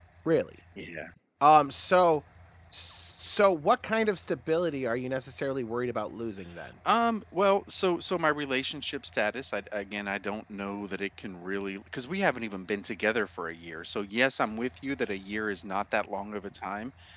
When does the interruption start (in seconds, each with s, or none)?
none